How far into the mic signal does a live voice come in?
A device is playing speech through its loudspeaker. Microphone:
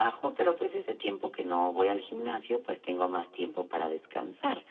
none

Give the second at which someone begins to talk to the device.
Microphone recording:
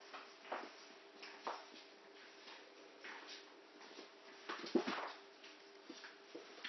none

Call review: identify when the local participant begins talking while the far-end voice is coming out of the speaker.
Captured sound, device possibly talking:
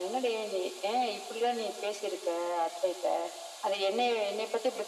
none

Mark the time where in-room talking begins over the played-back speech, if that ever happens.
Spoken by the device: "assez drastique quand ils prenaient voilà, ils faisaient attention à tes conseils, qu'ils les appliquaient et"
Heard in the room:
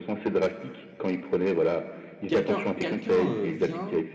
2 s

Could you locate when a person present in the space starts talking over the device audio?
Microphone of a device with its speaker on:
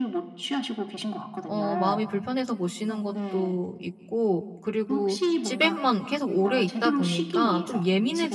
1 s

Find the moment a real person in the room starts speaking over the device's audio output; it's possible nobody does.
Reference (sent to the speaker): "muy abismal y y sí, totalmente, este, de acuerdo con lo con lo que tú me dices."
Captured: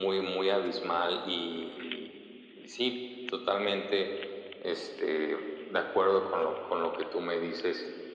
none

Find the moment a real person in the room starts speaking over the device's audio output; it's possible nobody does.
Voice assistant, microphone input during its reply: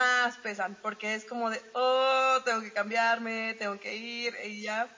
none

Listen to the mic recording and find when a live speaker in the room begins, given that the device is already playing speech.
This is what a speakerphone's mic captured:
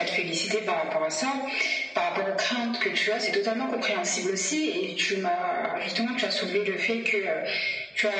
none

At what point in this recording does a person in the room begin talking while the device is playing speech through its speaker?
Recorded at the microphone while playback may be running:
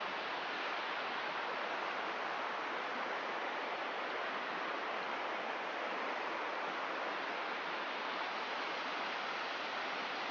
none

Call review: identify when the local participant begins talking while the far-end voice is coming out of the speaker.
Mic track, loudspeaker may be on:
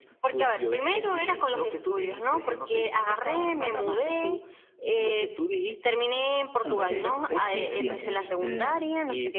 7 s

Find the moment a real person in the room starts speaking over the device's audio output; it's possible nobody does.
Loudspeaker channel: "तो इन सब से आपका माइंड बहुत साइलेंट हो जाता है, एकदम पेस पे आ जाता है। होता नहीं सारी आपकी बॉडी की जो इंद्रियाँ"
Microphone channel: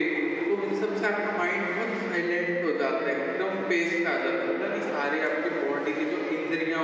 none

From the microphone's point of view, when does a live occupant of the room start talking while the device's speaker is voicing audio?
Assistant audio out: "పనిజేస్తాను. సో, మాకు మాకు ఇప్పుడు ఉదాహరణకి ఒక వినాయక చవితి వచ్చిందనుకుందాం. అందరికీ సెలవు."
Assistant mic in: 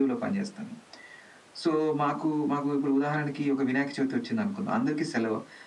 none

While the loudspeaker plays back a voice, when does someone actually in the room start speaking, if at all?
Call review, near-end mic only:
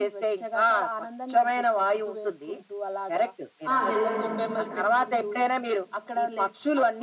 4 s

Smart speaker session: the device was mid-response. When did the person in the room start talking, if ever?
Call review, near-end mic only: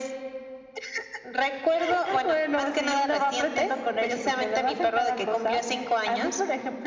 none

